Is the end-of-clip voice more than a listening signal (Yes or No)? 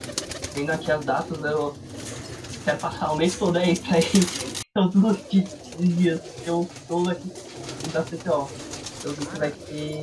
No